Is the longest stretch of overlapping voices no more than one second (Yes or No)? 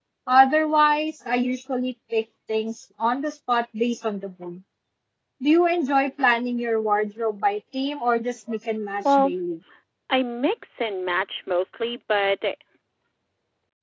Yes